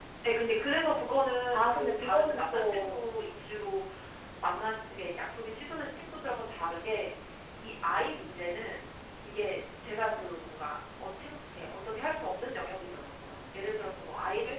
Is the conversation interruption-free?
No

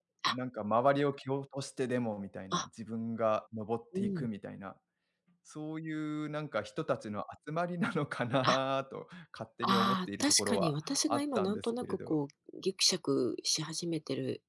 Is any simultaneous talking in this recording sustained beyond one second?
Yes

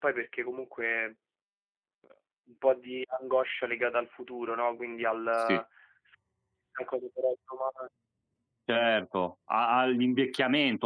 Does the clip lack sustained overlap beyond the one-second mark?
Yes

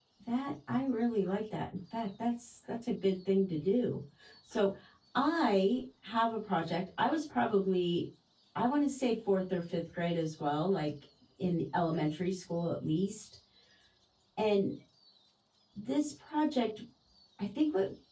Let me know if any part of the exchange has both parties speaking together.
No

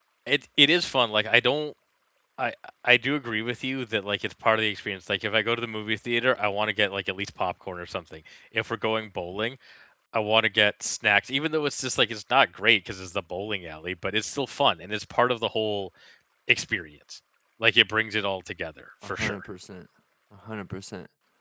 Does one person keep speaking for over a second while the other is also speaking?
No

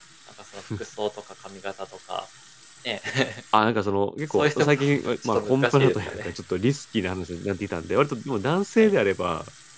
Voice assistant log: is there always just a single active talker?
No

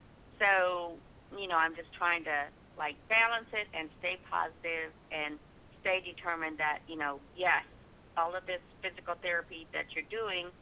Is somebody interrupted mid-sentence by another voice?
No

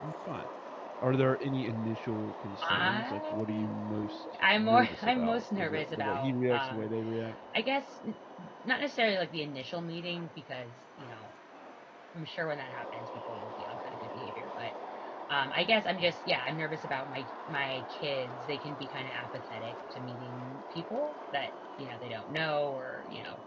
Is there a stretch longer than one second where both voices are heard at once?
Yes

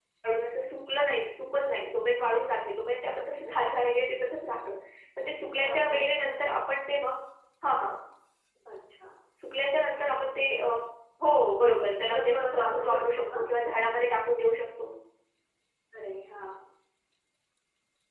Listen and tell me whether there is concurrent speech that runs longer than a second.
Yes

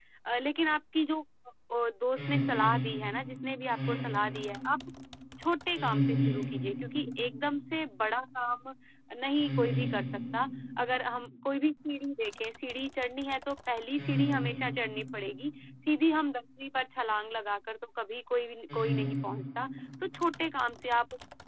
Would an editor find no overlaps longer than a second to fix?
Yes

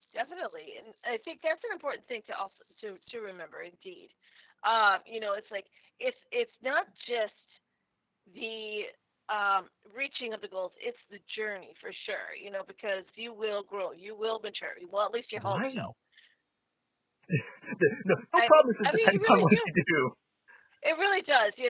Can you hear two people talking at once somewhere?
Yes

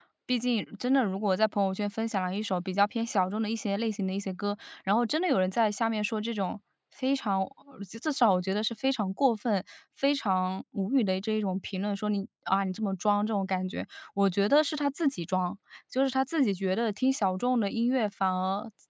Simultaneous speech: No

